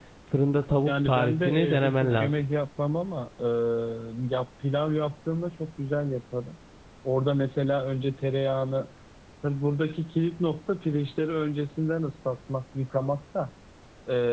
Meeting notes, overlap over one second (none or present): present